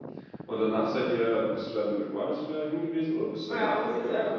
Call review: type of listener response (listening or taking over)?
taking over